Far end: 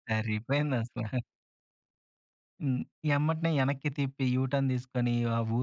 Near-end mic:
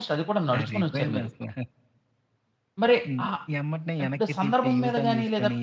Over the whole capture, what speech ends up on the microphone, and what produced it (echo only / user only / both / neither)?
both